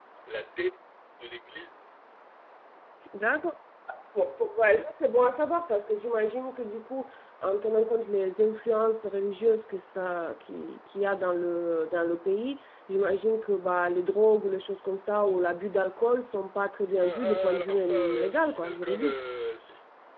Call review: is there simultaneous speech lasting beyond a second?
Yes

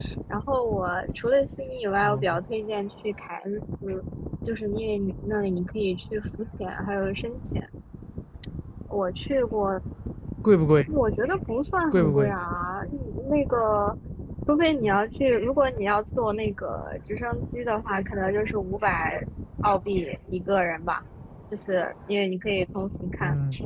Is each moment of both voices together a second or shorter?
Yes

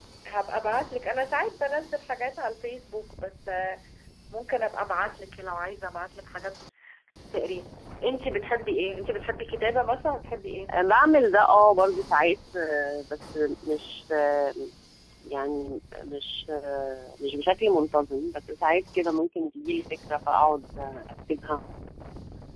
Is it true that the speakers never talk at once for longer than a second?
Yes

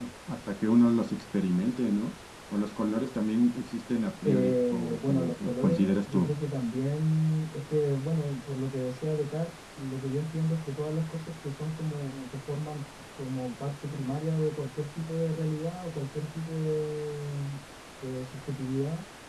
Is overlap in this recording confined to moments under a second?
No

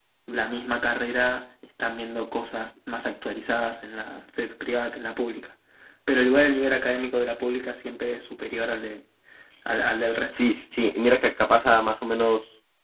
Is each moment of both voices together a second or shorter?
Yes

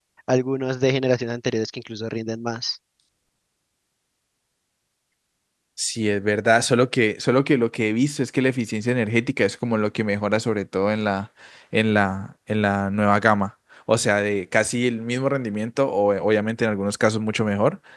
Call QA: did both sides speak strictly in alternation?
Yes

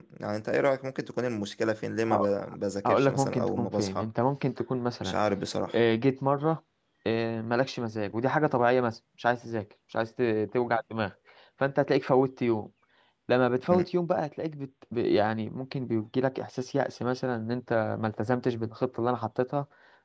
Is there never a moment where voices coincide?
No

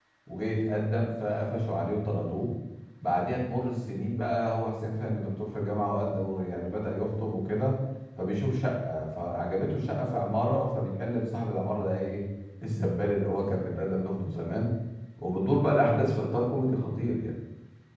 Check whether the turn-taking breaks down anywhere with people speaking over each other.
No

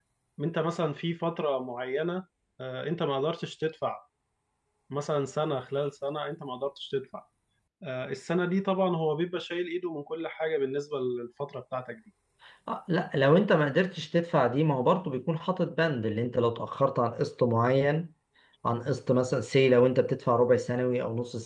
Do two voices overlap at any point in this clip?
No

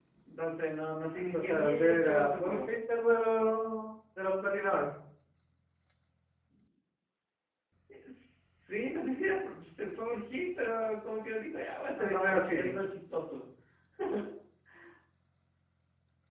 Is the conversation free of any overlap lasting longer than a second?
No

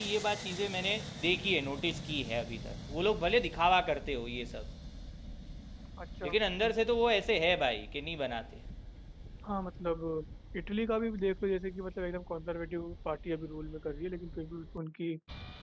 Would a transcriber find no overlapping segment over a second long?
Yes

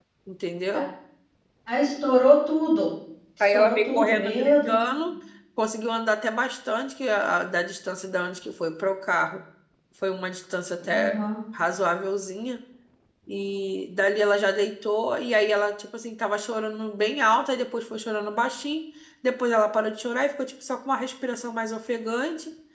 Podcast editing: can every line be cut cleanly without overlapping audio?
No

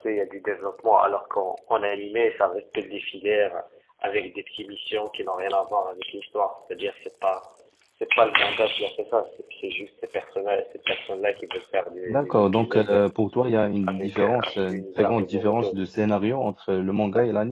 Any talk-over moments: Yes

